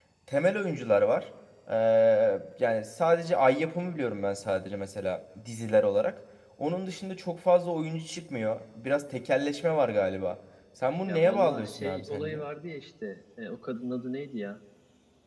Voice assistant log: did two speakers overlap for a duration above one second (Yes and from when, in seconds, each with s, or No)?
Yes, from 11.0 s